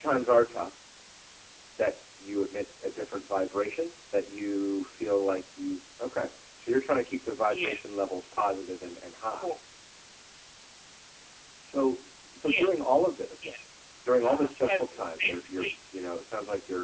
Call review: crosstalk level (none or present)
present